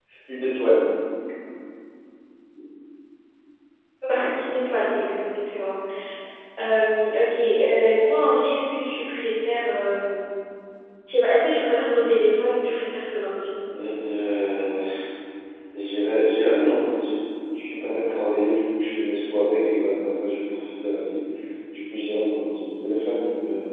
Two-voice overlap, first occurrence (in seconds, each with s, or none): none